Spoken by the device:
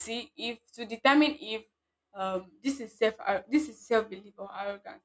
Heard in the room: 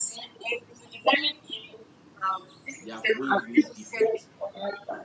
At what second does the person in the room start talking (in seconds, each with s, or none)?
2.8 s